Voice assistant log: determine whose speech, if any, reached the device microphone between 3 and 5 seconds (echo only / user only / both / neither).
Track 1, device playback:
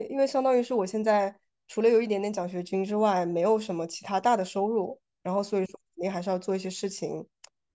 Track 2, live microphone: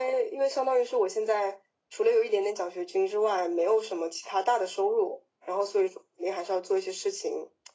echo only